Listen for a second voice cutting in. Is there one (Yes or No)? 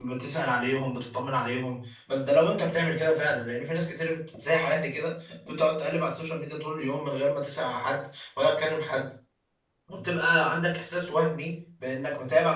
No